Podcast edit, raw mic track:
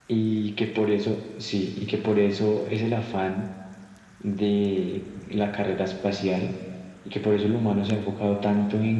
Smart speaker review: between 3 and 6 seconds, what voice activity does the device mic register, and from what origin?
echo only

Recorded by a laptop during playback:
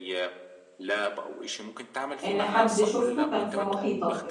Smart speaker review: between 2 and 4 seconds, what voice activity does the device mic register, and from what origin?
both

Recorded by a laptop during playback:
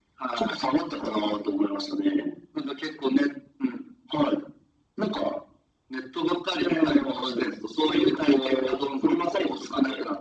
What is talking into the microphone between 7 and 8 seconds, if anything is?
echo only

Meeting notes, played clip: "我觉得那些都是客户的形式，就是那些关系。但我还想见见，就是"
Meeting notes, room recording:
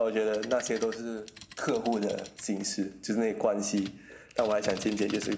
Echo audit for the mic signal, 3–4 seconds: echo only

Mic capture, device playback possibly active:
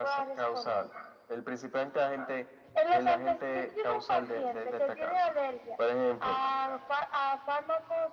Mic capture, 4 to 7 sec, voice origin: echo only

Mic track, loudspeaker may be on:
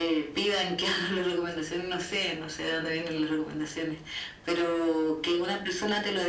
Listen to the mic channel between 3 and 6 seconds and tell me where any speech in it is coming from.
echo only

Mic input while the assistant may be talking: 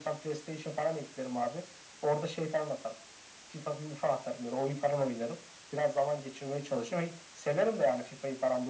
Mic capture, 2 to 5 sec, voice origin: echo only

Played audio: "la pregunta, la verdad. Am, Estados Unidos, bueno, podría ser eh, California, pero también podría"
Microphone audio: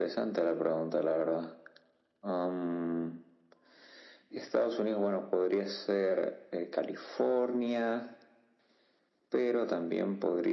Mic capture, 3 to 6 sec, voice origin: echo only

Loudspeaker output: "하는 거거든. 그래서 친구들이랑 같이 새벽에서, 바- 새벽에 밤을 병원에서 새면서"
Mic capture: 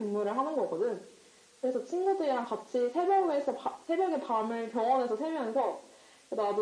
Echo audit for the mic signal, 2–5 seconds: echo only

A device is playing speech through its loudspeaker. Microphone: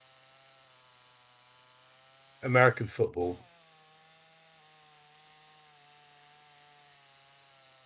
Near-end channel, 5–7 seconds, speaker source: neither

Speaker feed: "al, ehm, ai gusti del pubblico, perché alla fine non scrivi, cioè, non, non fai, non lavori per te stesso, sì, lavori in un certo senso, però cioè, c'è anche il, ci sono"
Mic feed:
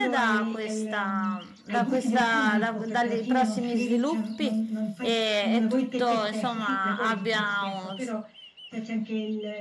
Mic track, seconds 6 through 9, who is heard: both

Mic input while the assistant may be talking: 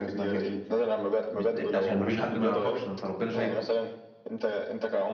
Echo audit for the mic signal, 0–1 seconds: both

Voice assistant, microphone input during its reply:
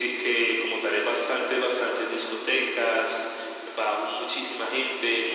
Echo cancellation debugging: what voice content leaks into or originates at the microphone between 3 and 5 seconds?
echo only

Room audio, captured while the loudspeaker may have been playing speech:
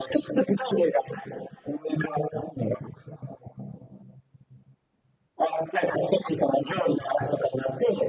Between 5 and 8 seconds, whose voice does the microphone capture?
echo only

